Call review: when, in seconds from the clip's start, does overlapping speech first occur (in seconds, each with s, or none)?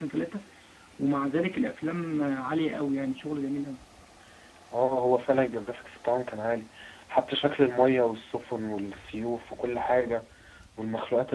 none